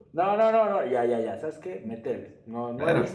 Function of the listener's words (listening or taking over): taking over